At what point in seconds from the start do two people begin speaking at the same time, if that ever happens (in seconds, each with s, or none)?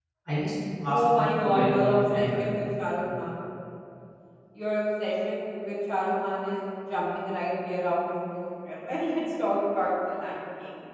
0.9 s